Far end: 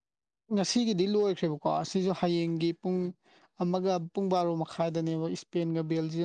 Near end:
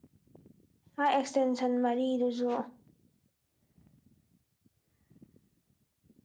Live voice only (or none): ꯃꯥ ꯑꯦꯛꯁꯇꯦꯟꯁꯟ ꯃꯔꯤꯗꯨꯁꯨ